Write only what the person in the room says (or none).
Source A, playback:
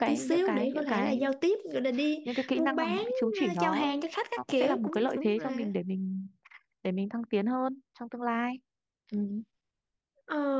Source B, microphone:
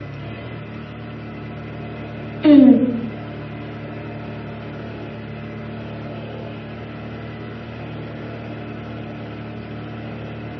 Ừ,